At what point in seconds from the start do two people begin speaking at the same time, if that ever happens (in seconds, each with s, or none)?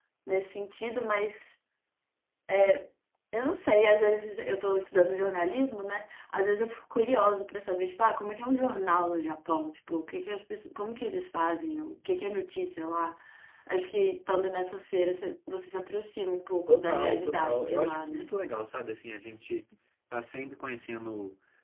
16.7 s